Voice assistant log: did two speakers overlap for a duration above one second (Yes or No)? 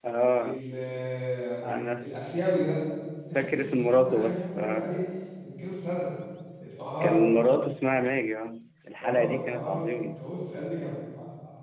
Yes